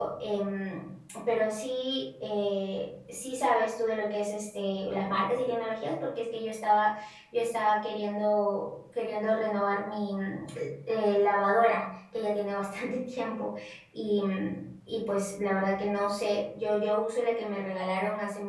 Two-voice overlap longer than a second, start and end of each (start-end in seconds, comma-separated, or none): none